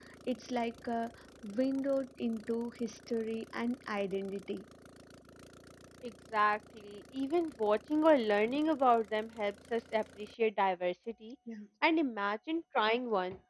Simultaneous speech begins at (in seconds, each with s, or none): none